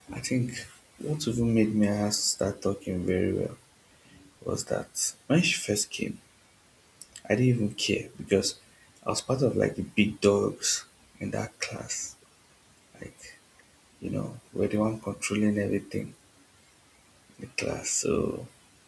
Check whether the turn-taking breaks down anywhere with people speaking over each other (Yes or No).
No